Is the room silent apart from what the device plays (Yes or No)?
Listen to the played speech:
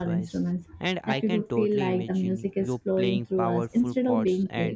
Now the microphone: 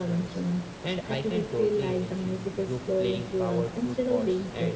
Yes